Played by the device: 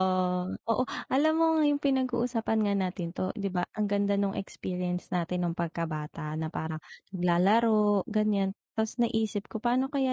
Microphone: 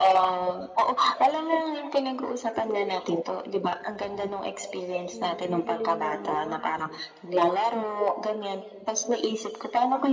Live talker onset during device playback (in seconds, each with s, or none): 5.1 s